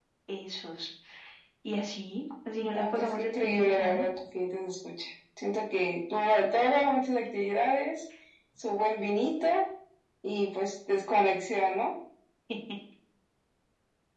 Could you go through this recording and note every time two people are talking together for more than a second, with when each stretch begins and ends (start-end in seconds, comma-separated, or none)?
2.7-4.0